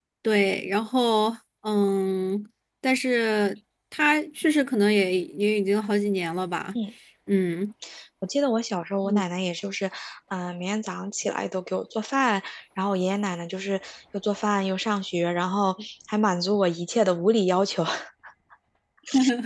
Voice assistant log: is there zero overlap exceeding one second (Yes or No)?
Yes